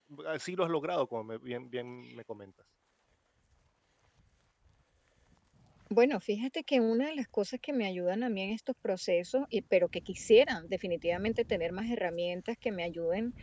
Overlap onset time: none

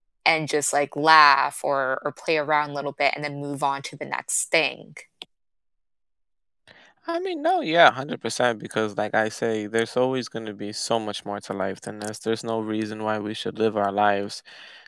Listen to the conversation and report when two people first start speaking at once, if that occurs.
none

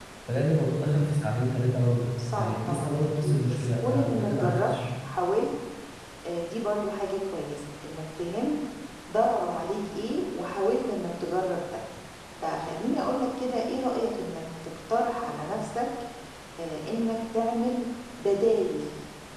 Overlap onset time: 2 s

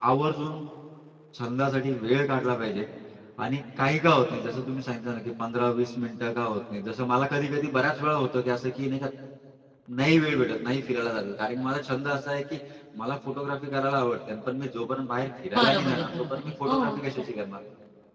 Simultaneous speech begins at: 16 s

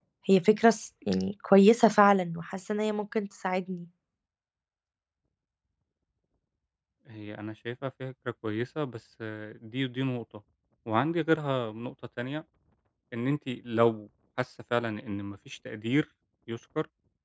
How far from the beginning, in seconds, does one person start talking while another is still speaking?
none

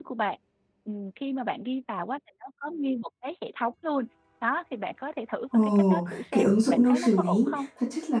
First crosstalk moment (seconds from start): 6 s

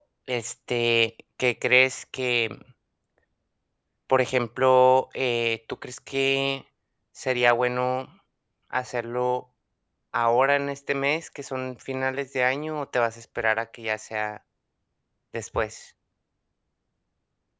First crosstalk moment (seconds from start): none

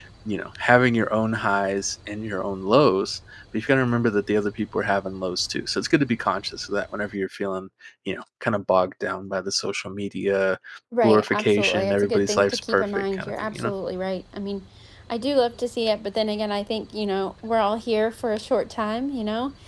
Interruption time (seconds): 11 s

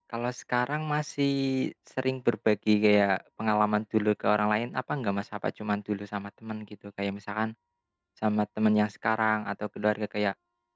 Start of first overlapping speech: none

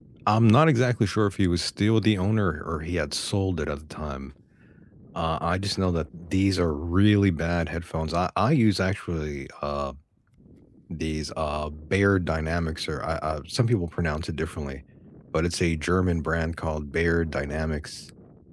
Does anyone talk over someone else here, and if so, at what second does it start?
none

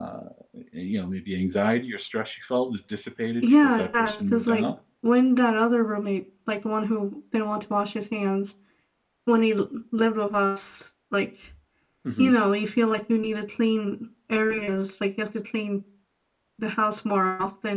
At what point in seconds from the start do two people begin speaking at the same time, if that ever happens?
3 s

